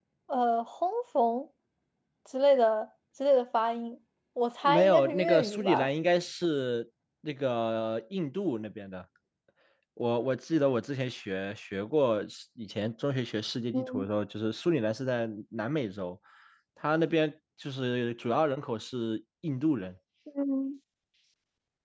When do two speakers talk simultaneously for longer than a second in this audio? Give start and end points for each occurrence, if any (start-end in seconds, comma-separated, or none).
4.6-5.9